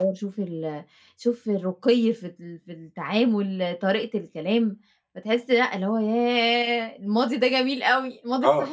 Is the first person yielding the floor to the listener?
Yes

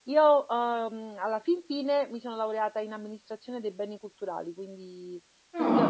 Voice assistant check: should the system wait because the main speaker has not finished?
Yes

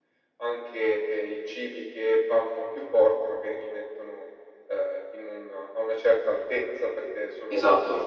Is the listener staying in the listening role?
Yes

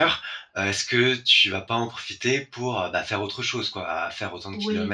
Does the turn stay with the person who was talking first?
No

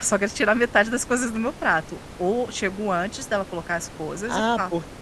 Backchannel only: No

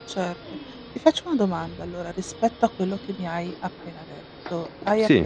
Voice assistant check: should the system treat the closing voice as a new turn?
No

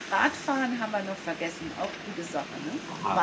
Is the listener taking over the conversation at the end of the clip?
Yes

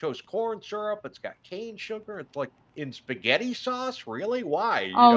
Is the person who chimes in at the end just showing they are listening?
No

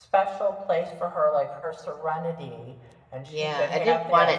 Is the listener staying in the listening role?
No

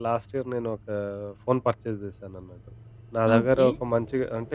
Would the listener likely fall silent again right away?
Yes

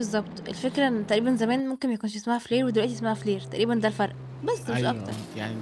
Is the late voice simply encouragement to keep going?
No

